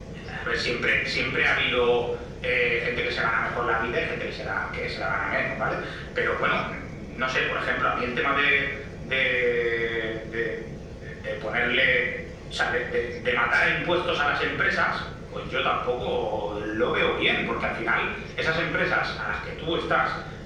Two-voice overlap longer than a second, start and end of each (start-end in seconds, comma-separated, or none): none